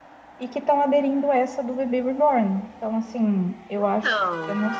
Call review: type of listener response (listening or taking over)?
listening